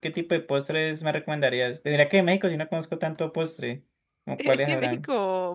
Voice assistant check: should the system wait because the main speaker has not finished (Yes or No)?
No